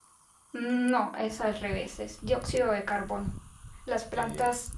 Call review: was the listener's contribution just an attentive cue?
Yes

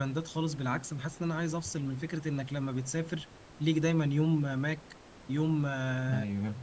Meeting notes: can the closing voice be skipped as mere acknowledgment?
Yes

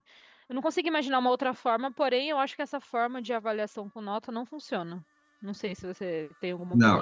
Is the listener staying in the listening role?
No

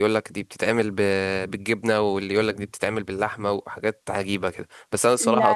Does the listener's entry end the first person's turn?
No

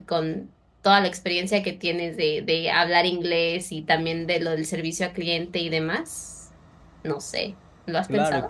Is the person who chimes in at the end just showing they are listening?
No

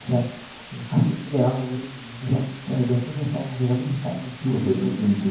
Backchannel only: No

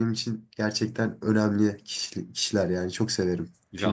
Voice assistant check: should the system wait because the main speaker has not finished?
No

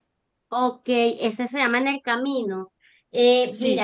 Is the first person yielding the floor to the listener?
No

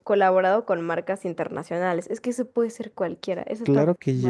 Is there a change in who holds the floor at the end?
Yes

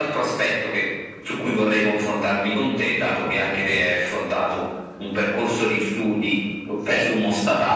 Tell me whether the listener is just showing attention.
Yes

